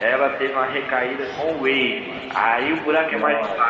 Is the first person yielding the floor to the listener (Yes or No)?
No